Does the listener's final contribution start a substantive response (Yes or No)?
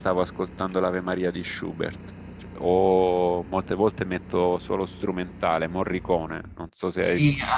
Yes